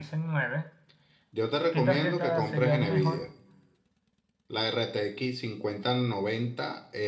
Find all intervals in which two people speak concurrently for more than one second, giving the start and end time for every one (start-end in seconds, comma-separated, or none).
1.7-3.2